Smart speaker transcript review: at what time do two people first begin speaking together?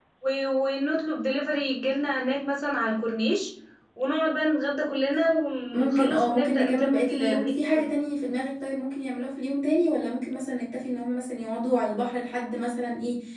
6 s

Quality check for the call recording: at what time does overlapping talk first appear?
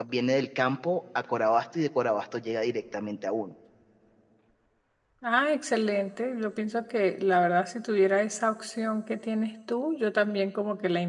none

